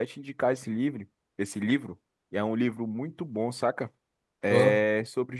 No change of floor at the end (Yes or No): Yes